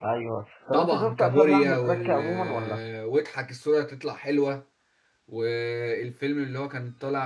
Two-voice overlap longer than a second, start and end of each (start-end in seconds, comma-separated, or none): 0.7-2.8